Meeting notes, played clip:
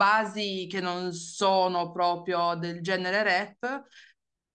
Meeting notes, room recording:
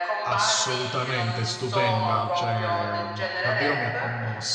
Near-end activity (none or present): present